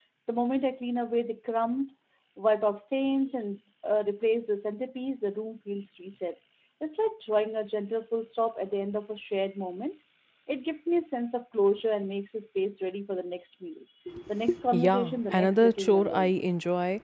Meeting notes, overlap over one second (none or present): present